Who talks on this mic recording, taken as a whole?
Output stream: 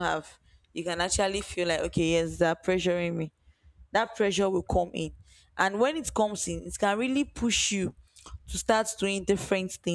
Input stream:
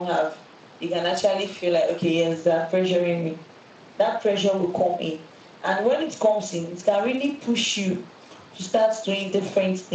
echo only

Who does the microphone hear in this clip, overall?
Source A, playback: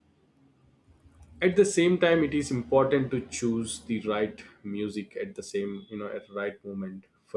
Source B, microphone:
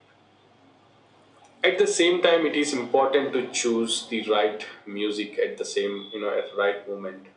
echo only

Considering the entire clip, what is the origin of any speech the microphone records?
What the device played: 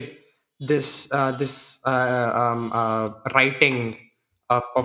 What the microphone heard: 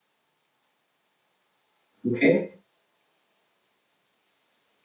user only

